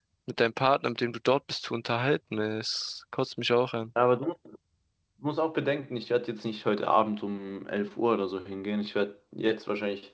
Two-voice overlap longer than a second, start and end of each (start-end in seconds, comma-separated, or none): none